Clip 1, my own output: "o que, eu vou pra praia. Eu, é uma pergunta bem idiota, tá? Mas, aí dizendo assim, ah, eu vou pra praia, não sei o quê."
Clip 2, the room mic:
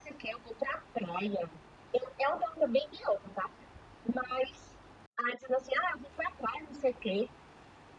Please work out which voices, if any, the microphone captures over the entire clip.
echo only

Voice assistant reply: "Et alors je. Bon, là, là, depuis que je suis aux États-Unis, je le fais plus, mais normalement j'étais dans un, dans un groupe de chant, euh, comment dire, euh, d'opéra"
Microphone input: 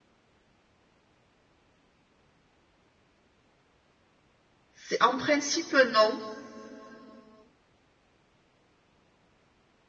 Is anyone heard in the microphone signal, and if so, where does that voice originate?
user only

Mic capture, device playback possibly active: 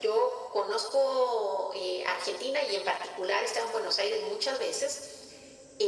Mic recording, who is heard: echo only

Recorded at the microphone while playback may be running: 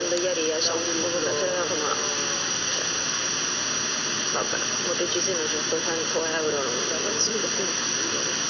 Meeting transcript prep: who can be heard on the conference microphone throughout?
echo only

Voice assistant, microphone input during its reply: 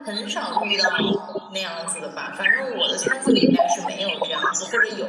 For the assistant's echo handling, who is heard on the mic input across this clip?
echo only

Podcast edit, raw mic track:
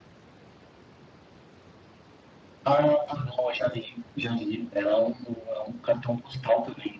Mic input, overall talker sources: echo only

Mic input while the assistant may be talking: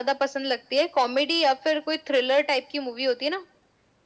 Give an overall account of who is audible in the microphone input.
echo only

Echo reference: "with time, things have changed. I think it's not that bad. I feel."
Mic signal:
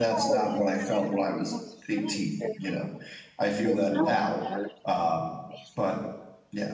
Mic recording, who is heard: both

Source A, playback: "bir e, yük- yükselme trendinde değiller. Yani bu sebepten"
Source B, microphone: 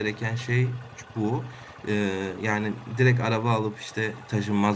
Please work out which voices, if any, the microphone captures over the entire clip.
user only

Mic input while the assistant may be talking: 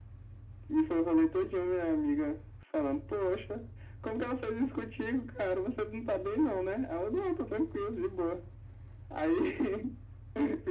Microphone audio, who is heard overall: echo only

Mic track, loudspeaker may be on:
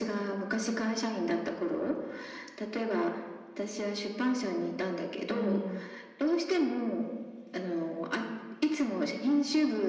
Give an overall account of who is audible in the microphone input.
both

